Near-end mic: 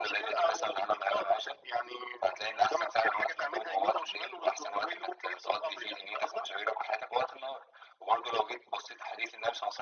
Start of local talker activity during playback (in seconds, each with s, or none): none